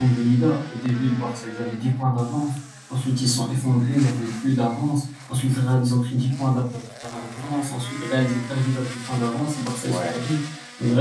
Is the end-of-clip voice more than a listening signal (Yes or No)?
No